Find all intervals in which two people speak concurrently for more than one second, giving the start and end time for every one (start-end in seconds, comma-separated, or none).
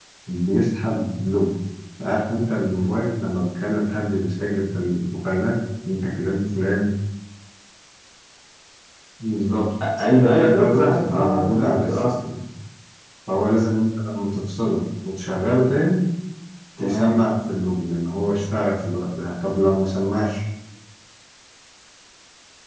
10.1-12.1